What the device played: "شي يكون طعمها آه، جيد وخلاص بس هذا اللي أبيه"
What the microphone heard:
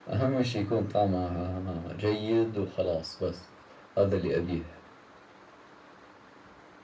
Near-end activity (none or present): none